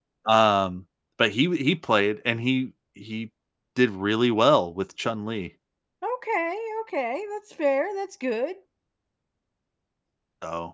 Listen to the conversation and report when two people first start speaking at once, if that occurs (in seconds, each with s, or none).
none